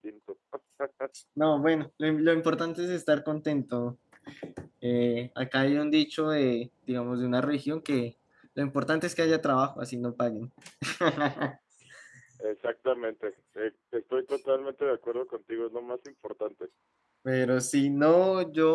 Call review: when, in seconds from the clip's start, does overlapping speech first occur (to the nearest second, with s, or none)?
none